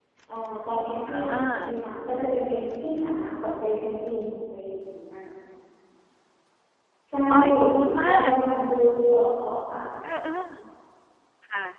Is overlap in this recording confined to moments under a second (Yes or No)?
Yes